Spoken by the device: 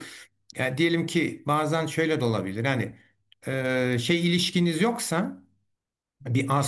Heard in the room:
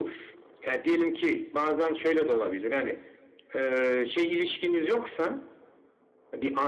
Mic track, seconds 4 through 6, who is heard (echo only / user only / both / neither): echo only